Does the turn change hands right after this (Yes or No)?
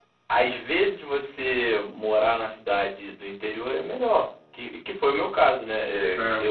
No